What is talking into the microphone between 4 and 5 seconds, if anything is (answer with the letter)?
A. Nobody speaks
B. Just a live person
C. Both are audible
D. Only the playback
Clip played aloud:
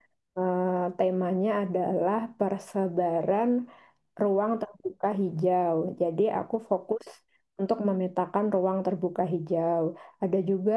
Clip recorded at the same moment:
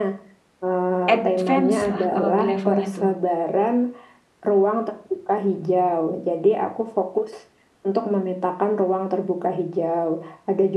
D